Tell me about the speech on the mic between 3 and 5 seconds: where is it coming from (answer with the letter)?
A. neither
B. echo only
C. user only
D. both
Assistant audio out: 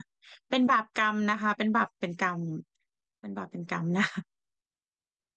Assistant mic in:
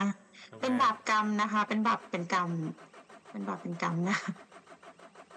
B